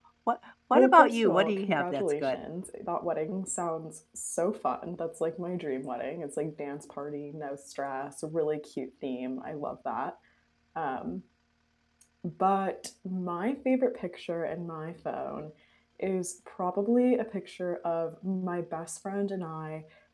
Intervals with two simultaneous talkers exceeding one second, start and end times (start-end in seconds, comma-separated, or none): 0.7-2.4